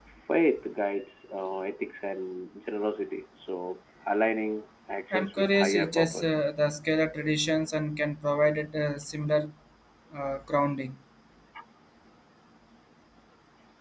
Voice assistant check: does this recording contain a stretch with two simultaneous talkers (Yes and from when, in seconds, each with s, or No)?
Yes, from 5.1 s